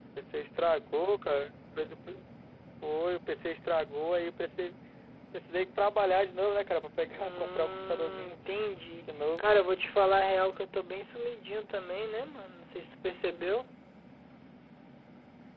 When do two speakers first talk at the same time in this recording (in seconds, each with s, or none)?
7.1 s